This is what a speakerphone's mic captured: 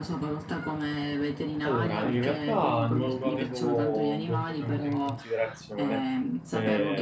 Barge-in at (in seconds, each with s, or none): 1.6 s